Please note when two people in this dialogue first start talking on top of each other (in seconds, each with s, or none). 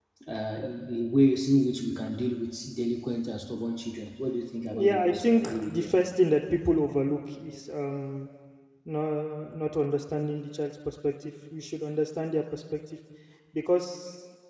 4.7 s